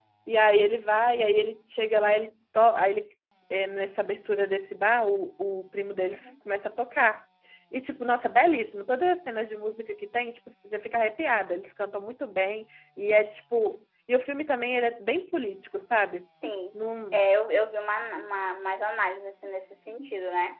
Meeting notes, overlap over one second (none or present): none